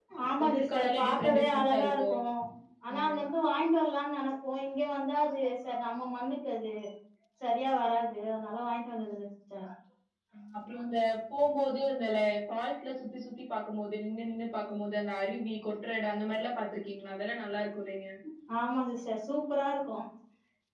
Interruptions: present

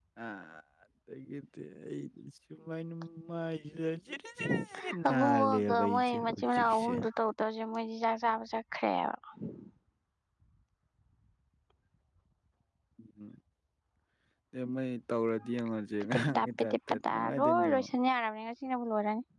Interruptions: present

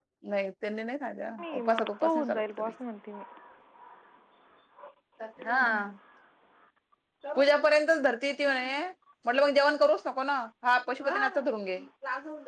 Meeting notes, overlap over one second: present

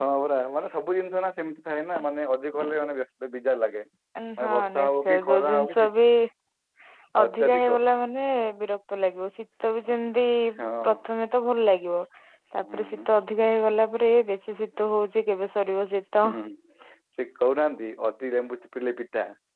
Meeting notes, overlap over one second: present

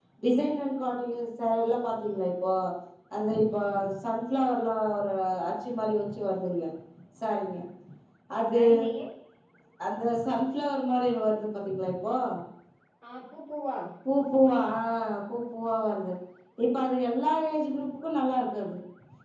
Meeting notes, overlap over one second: none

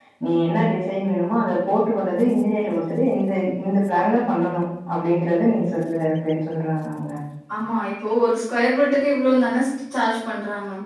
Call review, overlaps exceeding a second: none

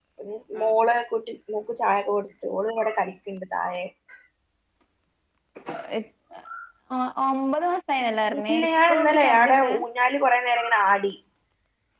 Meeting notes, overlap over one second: present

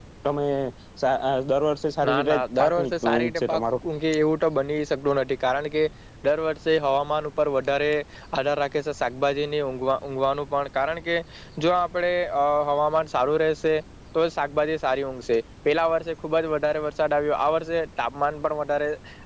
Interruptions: present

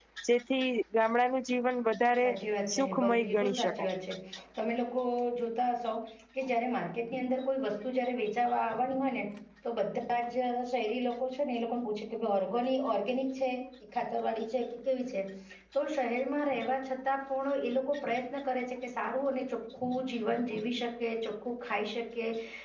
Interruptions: present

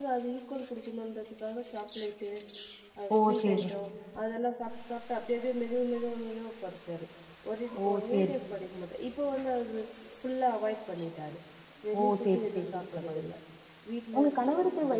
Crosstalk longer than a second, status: present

